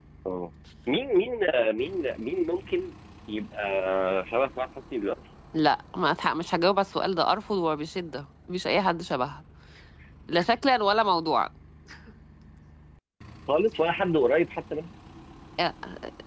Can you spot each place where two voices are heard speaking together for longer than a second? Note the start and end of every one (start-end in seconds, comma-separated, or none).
none